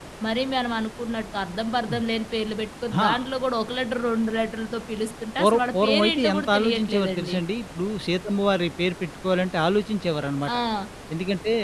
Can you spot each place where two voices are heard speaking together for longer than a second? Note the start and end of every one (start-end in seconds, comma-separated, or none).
5.4-7.4